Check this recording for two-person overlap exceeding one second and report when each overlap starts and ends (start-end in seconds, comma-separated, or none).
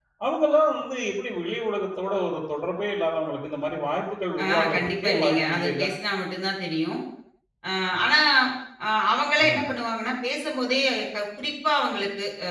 4.4-5.8